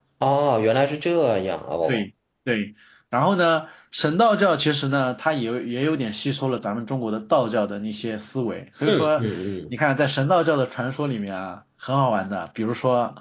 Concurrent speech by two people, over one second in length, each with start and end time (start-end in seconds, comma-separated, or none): none